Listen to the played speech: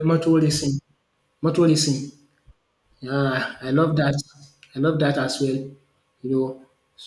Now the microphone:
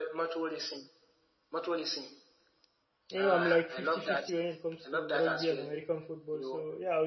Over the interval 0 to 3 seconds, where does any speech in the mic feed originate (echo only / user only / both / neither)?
echo only